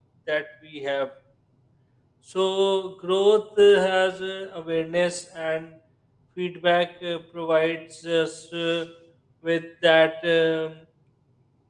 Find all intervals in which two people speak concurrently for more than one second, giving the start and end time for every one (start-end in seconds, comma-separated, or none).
none